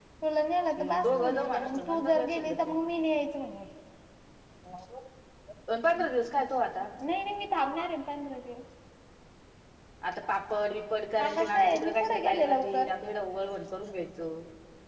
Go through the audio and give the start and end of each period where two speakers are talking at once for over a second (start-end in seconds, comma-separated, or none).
0.9-2.8, 11.2-12.9